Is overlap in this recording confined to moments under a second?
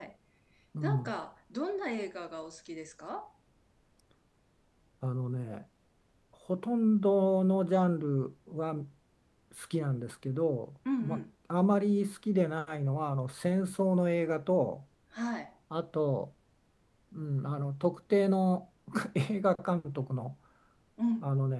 Yes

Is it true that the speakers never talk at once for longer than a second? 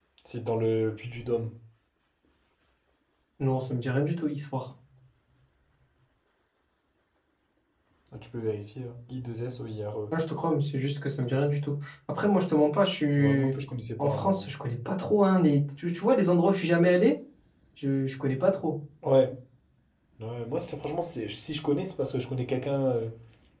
Yes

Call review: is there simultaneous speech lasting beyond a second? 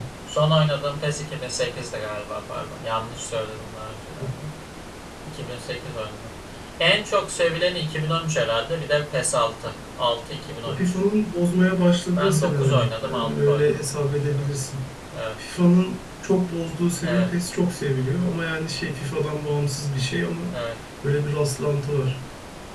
Yes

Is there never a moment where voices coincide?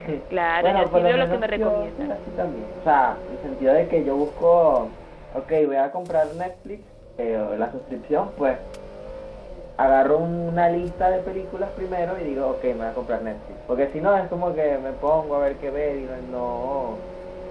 No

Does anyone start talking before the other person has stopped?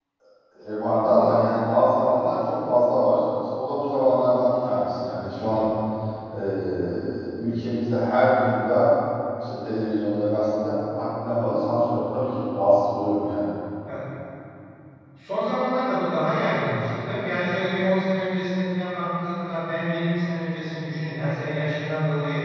No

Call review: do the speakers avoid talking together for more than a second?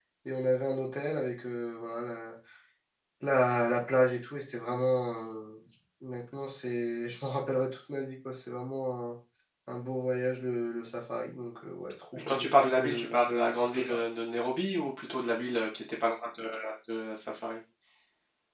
No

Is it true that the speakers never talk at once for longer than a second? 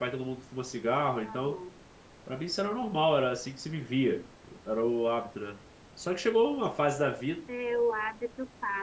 Yes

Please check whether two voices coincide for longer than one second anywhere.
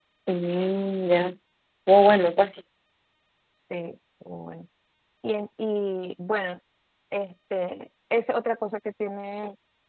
No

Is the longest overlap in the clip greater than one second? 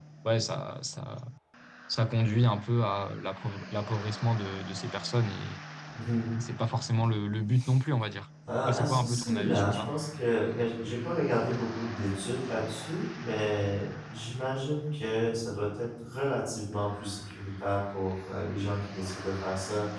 Yes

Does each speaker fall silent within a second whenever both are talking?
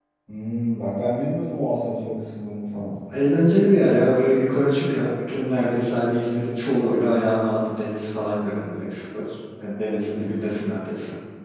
Yes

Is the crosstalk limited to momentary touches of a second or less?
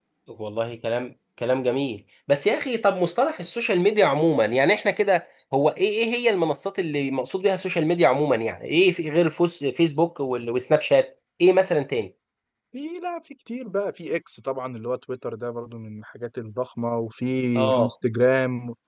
Yes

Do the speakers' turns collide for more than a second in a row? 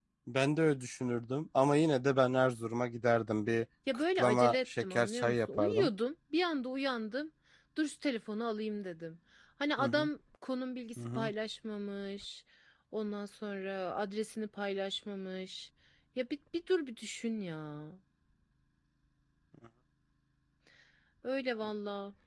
Yes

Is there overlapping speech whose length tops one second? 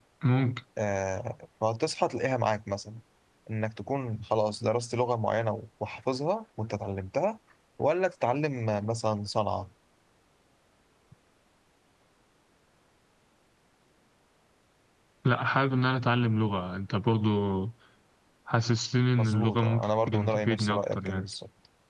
Yes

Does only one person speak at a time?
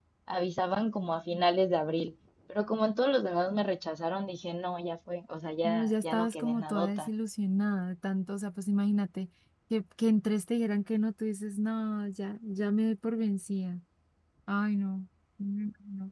No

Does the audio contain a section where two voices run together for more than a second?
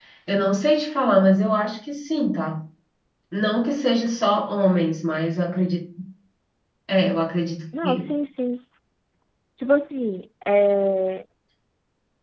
No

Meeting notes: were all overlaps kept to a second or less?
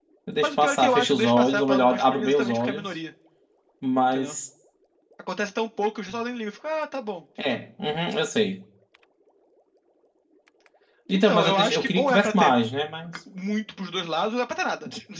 No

